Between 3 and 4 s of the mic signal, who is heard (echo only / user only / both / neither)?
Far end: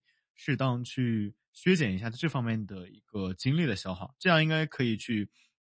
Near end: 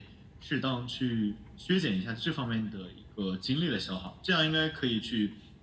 echo only